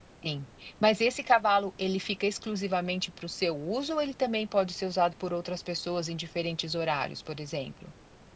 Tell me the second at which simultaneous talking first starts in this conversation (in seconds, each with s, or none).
none